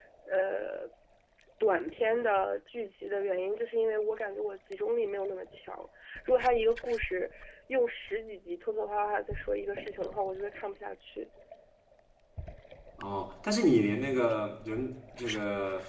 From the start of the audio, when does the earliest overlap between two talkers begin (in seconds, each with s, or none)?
none